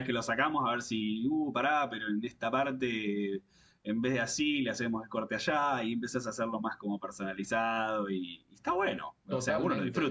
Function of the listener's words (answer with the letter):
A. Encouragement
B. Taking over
B